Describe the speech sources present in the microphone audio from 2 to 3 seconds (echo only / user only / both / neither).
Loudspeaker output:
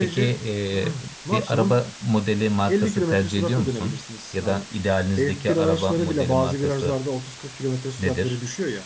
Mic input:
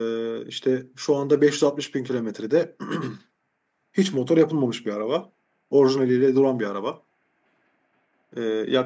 user only